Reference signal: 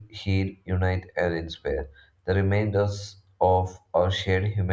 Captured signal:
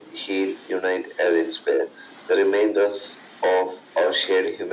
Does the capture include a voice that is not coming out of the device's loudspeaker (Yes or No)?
No